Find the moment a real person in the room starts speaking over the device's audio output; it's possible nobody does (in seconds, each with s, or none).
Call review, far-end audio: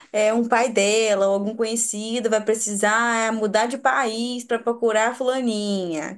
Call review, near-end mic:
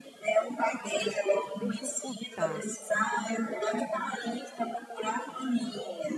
1.5 s